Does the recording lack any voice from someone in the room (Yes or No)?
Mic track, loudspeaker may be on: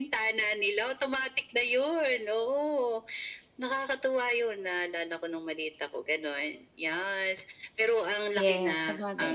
No